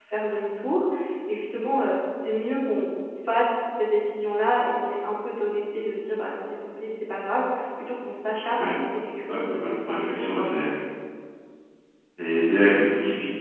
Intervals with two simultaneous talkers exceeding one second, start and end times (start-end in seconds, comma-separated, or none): 9.3-10.5